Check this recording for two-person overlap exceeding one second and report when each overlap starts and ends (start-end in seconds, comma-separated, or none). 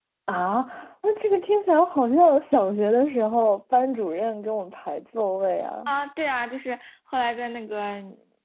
none